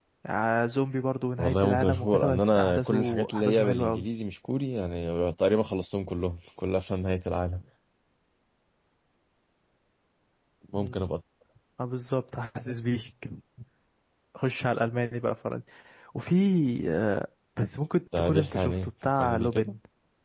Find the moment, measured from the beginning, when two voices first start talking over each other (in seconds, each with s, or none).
1.4 s